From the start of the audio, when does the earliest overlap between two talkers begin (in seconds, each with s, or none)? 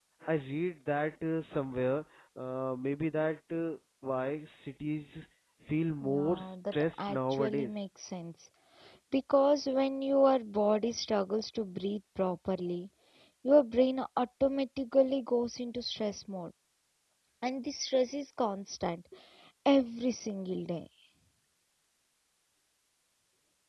6.0 s